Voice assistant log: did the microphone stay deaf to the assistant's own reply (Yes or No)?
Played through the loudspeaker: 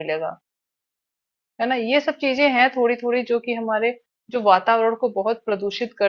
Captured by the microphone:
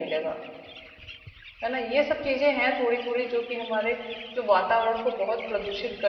No